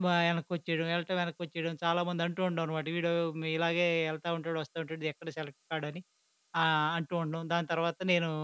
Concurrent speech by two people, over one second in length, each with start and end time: none

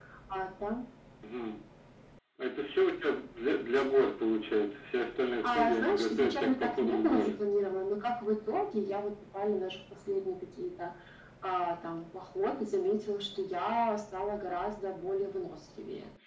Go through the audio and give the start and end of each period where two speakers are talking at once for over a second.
5.4-7.4

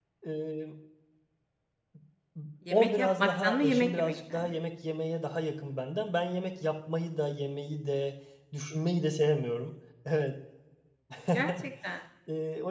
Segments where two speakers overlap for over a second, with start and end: 2.7-4.5

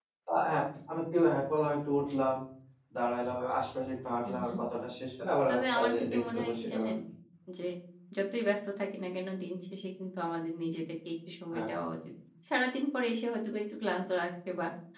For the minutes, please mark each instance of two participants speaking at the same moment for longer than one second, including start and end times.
5.5-6.9

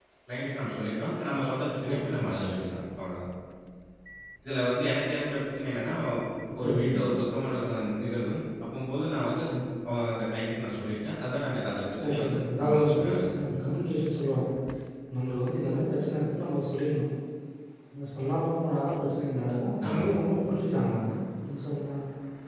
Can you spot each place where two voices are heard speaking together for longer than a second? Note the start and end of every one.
12.1-13.6

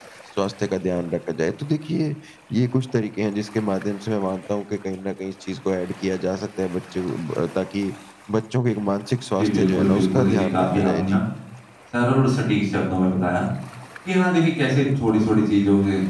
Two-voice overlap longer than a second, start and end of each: 9.4-11.2

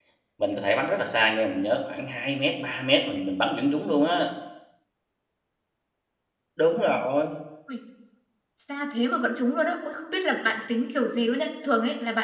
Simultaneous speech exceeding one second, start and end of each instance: none

